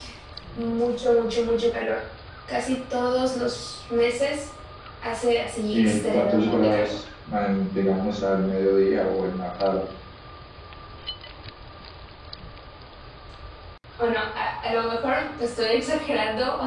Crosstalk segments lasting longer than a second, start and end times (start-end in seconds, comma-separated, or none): 5.7-6.9